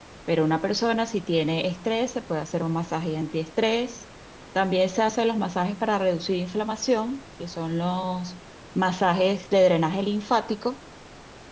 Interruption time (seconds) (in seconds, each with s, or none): none